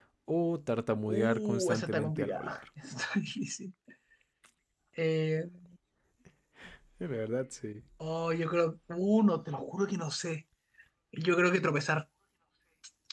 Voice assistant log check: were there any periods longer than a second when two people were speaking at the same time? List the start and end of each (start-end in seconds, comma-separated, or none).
1.1-2.6